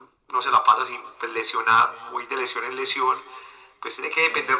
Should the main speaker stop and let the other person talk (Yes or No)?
No